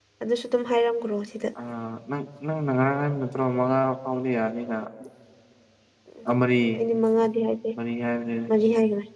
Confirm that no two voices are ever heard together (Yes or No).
Yes